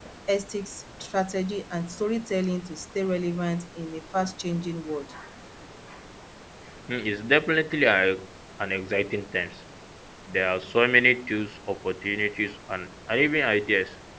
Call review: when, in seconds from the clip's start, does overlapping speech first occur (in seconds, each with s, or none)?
none